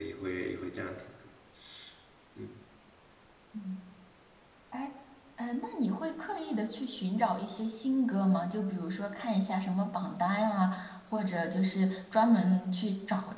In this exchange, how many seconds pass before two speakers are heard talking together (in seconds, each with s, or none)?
none